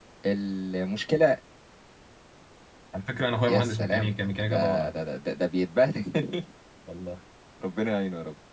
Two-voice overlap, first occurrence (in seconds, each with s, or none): 3.5 s